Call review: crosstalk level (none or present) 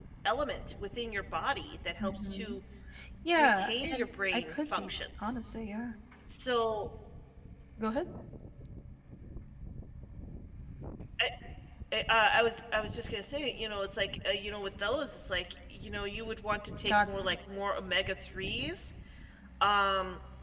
present